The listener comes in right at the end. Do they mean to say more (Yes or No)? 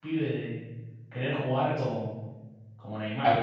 Yes